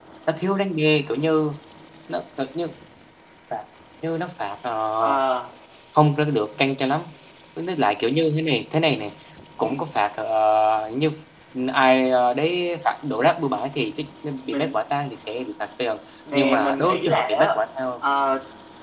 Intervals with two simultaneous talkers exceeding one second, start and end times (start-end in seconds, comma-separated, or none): 16.3-17.6